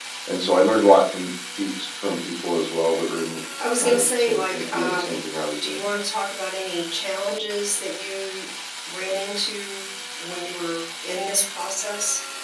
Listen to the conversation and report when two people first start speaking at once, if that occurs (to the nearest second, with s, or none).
4 s